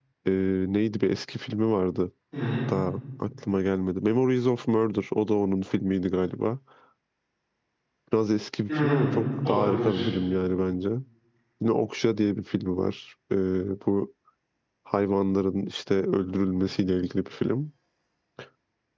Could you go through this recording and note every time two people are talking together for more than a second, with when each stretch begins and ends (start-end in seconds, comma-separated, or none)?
8.7-10.0